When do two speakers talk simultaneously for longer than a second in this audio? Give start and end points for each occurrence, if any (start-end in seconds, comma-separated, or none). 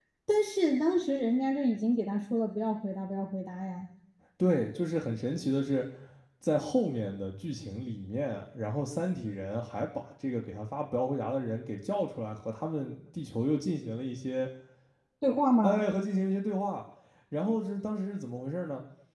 none